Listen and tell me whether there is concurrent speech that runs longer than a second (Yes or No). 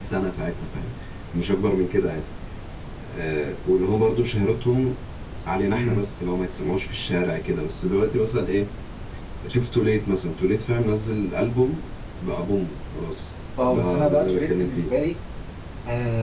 Yes